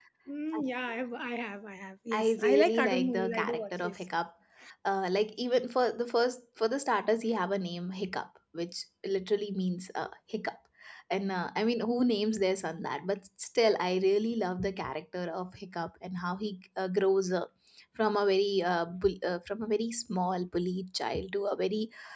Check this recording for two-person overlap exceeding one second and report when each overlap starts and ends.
2.1-4.0

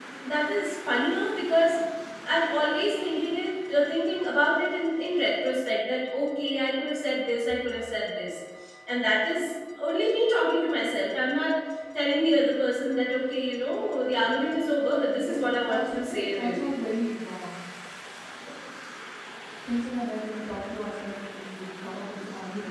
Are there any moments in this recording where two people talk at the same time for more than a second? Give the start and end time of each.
15.1-16.8

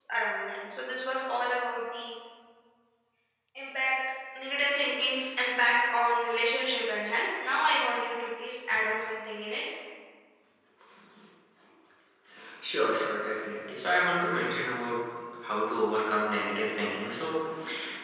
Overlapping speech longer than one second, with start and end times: none

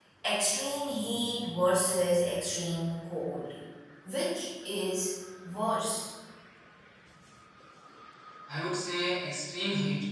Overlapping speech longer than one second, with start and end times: none

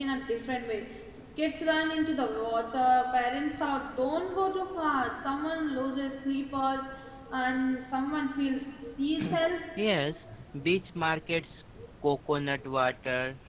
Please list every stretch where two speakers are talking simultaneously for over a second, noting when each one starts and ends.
none

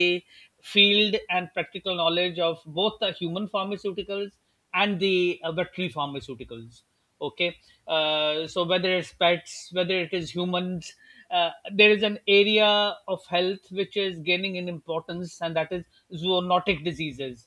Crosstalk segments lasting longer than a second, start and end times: none

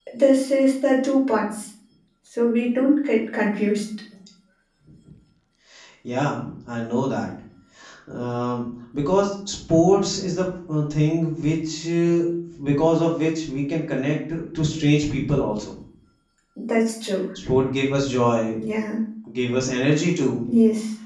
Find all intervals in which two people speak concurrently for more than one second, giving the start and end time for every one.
none

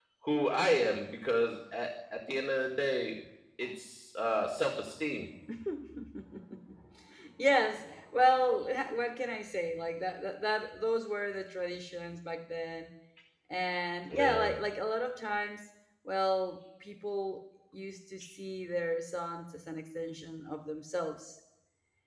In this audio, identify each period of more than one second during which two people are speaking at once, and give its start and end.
none

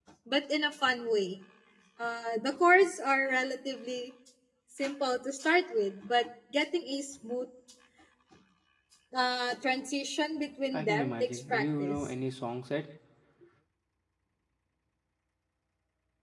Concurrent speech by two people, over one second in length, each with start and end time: 10.7-12.0

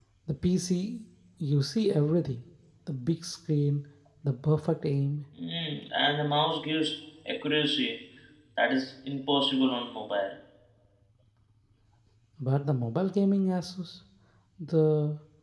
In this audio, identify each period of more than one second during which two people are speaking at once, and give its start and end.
none

